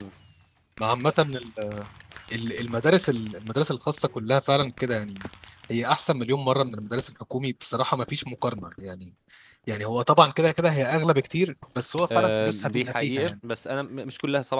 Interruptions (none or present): present